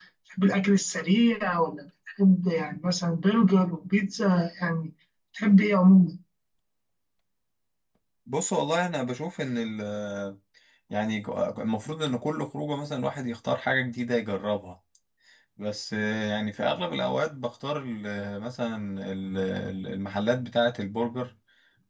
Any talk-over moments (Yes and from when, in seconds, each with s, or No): No